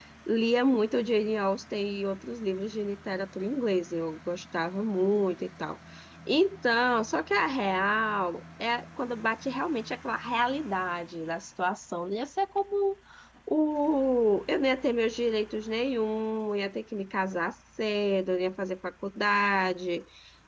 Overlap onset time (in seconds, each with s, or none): none